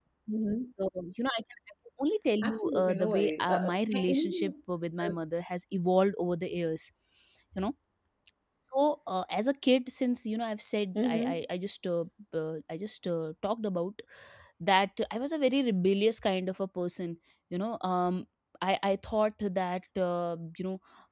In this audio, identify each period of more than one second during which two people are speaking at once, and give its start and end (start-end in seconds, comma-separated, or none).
2.4-4.5